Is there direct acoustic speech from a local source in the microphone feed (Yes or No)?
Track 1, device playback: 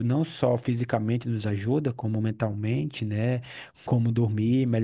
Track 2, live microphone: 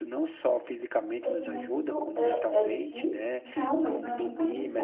Yes